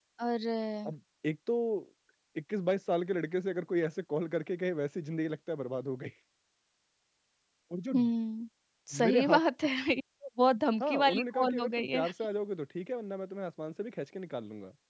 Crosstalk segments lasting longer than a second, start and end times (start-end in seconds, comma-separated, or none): 10.8-12.0